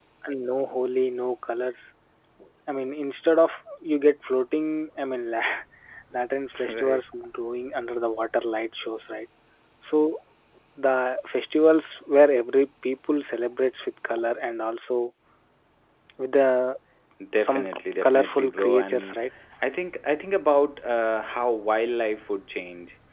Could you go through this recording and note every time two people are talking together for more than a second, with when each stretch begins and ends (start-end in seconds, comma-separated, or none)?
17.4-19.2